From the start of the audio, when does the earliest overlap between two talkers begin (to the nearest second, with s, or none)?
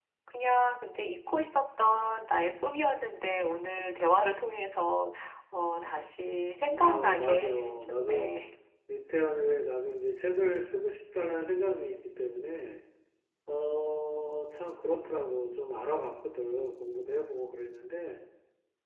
7 s